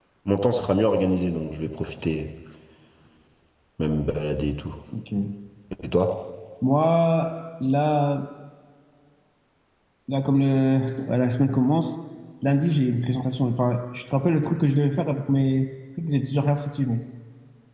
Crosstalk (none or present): none